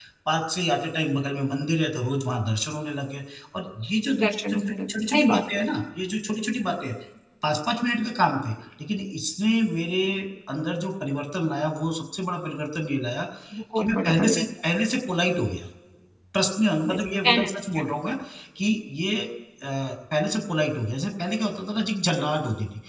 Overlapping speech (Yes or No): Yes